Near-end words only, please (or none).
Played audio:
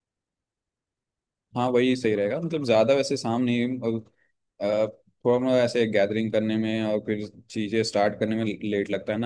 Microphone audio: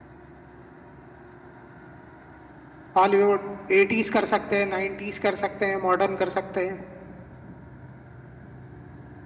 हॉलीवुड एटीज कर सकते हैं नाइनटीज कर सकते हैं मॉडर्न कर सकते हैं